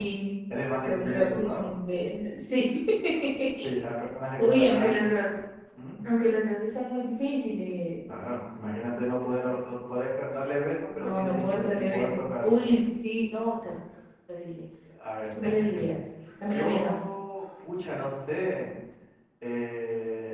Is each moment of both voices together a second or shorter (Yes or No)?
No